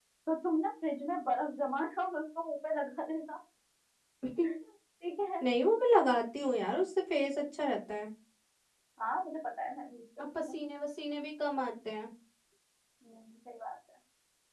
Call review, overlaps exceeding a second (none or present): none